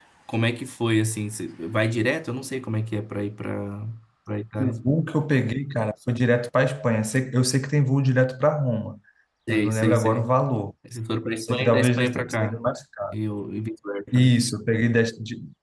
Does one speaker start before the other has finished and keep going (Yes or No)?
Yes